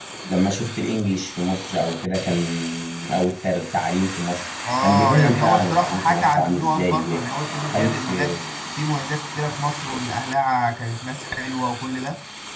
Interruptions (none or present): present